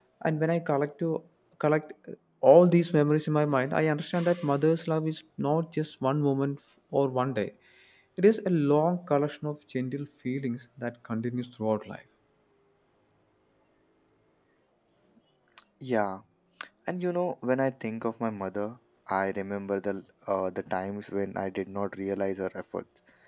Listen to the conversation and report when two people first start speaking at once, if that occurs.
none

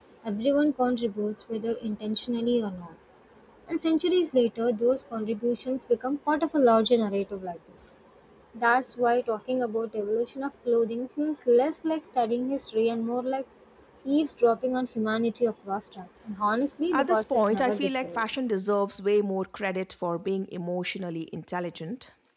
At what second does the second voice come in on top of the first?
16.9 s

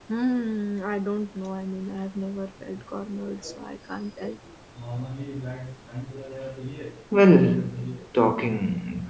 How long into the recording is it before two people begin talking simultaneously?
none

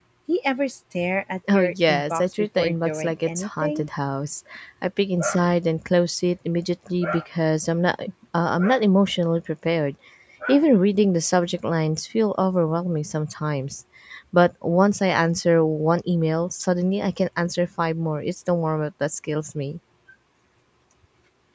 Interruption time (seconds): 1.5 s

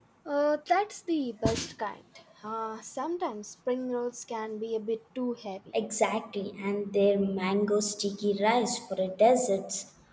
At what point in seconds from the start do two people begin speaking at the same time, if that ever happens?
none

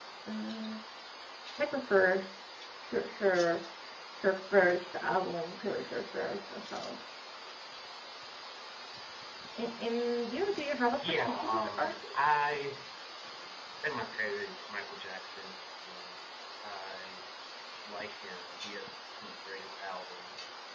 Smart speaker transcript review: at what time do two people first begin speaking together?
10.9 s

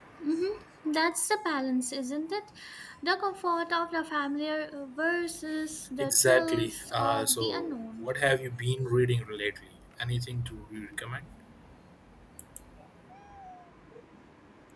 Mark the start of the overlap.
6.0 s

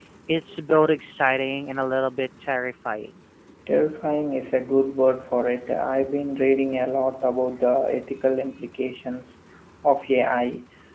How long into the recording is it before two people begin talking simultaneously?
none

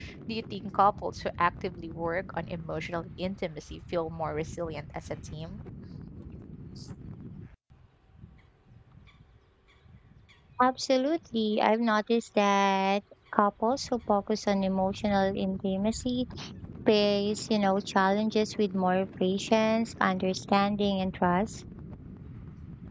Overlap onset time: none

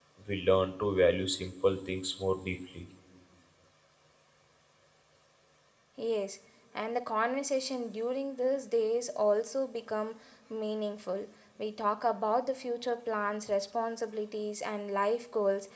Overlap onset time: none

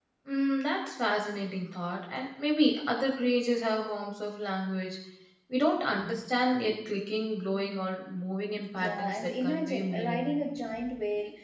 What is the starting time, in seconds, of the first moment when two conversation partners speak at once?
8.7 s

